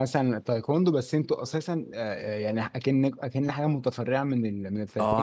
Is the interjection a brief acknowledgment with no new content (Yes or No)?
No